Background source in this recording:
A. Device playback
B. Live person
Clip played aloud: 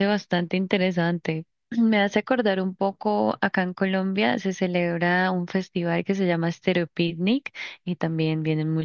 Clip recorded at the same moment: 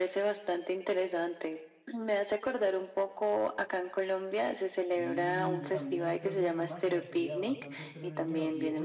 B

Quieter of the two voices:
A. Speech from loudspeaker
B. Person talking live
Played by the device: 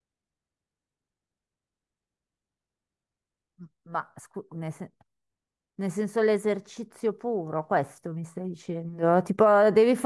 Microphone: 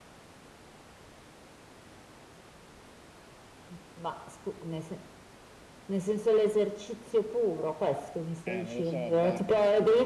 B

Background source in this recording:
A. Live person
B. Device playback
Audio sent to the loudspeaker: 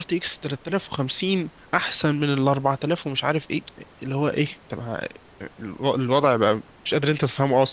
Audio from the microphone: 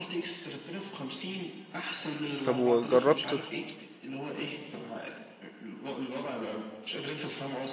B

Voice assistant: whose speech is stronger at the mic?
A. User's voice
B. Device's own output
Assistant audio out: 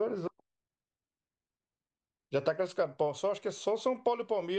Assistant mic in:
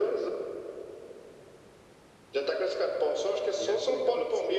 B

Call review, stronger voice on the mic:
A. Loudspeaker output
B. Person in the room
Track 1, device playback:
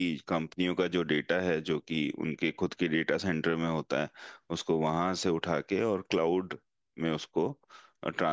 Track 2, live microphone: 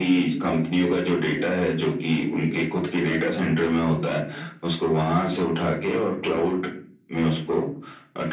A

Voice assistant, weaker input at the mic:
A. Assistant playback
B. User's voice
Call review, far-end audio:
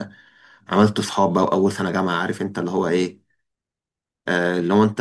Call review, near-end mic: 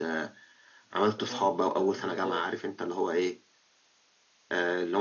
B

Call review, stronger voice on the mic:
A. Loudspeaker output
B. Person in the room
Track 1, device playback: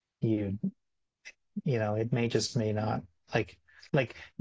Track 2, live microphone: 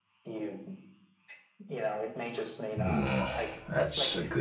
B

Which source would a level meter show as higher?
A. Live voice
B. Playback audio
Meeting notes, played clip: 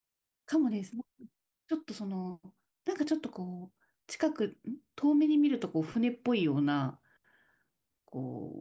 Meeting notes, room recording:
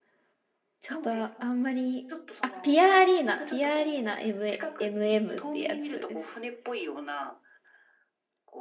A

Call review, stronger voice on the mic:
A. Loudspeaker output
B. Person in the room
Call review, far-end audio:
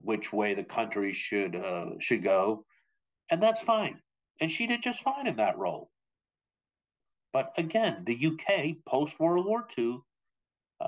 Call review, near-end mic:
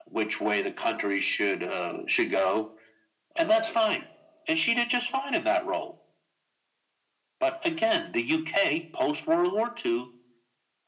A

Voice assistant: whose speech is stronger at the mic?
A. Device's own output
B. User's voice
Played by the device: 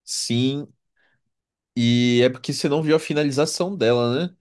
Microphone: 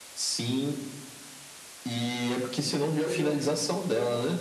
A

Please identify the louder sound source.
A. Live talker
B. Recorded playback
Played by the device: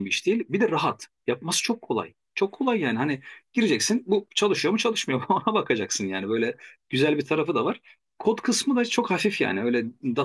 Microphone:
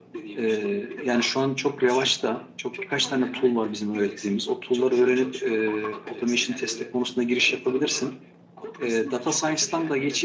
A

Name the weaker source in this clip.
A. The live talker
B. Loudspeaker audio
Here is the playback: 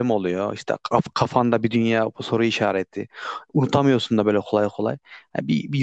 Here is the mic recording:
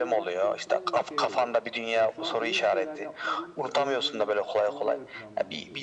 A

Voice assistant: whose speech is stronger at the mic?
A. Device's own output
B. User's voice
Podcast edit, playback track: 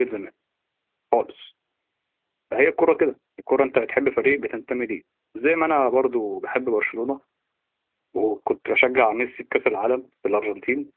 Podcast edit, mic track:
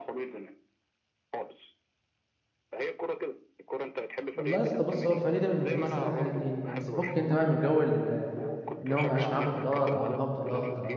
B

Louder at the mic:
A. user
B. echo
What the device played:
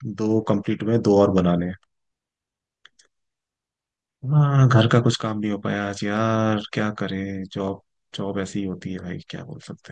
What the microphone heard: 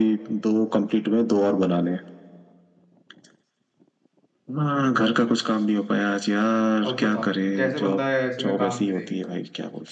B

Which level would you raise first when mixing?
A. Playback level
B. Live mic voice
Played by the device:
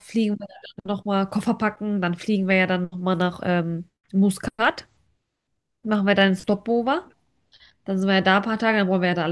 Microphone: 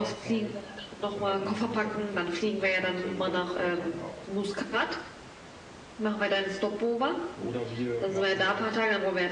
B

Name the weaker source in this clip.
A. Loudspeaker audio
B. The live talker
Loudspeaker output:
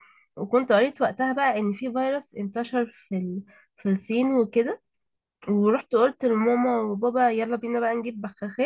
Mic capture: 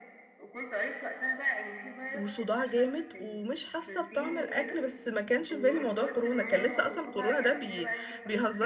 A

